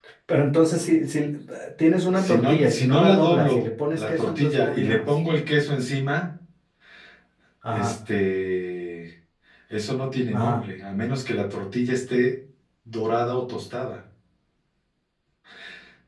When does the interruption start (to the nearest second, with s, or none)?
2 s